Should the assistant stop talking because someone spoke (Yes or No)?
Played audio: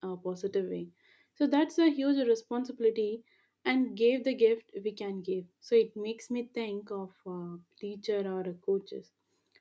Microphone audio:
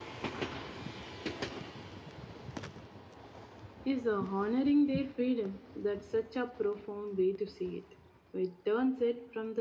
Yes